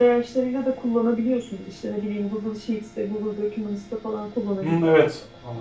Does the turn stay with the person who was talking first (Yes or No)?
No